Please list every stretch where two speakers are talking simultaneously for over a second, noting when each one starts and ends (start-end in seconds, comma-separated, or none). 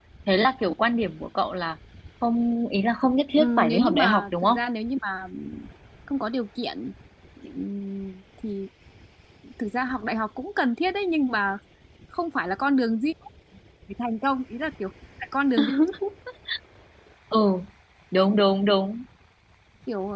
3.4-4.6